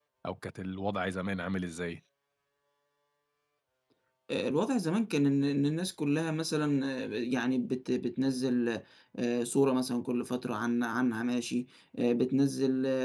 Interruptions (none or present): none